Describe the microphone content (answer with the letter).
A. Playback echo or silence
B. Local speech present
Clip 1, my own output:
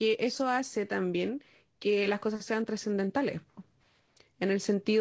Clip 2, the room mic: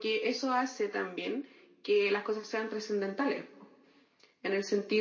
A